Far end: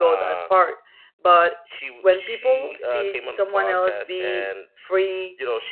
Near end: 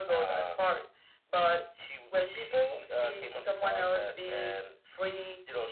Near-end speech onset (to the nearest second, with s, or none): none